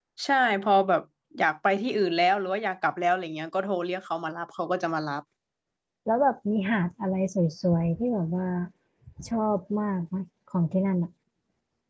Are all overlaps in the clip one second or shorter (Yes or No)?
Yes